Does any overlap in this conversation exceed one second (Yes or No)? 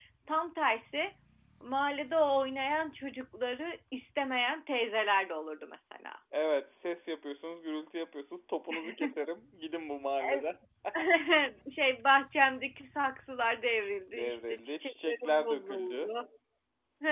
Yes